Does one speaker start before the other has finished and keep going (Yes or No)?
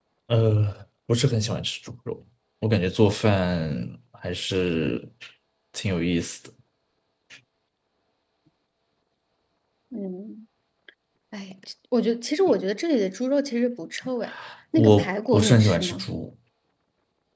Yes